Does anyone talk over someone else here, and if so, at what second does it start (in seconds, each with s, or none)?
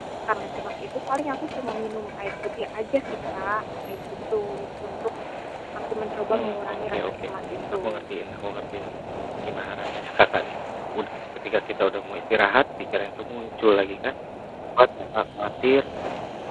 6.3 s